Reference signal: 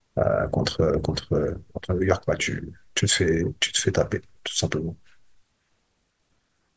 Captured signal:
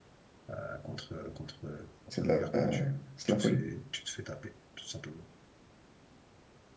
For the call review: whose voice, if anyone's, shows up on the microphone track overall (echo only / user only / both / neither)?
both